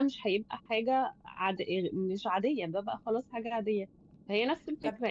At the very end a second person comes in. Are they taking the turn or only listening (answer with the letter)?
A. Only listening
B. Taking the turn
A